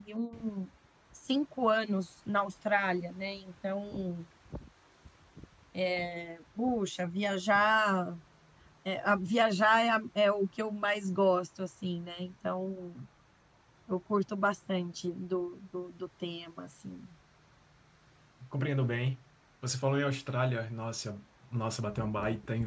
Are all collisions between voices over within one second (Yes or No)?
Yes